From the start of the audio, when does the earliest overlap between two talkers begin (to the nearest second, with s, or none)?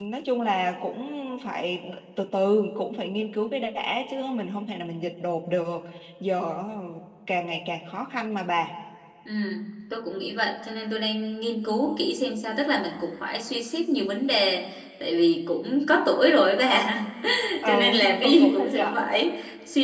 18 s